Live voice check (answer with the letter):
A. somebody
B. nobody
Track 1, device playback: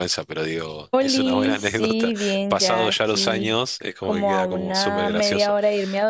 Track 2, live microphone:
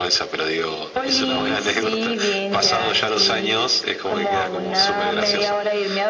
B